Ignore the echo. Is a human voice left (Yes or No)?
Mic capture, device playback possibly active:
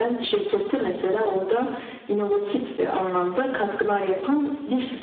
No